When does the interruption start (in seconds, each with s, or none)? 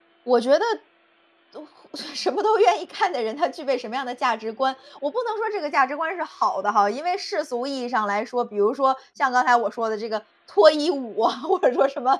none